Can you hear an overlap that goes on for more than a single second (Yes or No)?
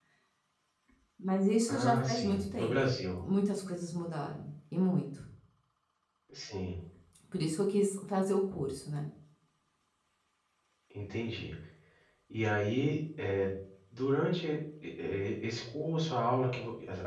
Yes